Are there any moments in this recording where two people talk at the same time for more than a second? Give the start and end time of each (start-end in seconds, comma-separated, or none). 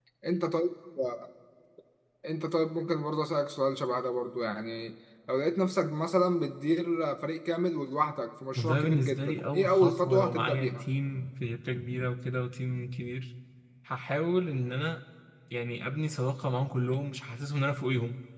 8.6-10.8